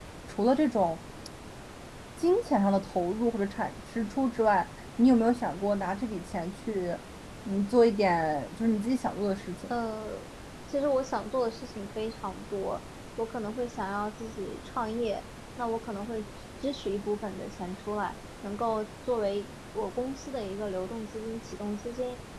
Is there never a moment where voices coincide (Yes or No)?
Yes